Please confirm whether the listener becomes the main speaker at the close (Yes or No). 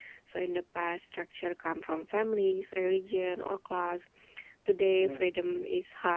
No